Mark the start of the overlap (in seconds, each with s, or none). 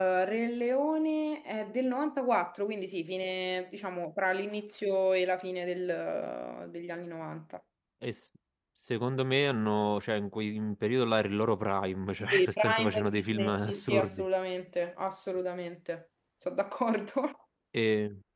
12.2 s